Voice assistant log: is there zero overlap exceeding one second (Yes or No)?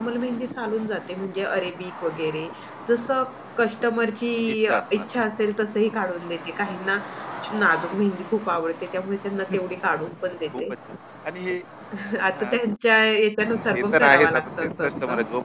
No